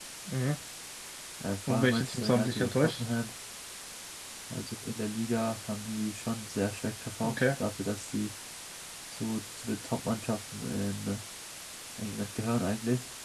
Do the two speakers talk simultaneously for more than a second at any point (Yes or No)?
Yes